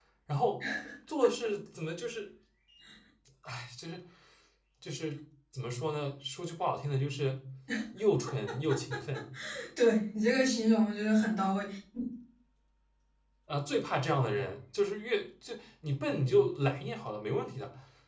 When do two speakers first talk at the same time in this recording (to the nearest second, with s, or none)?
none